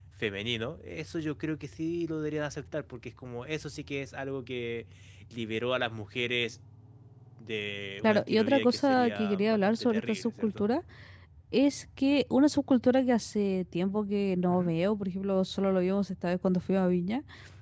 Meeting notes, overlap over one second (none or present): present